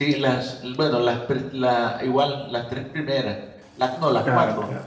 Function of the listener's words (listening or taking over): listening